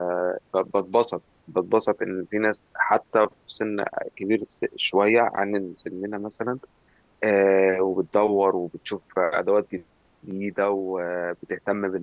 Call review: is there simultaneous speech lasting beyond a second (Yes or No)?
No